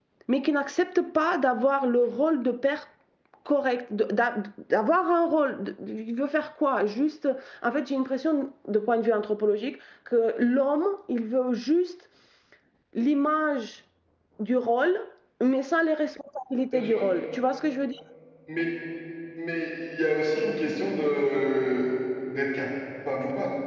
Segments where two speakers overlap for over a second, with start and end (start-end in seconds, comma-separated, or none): none